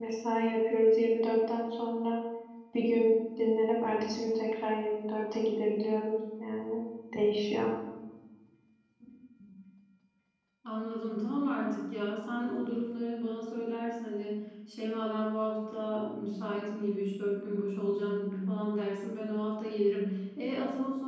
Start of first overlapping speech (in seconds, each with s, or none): none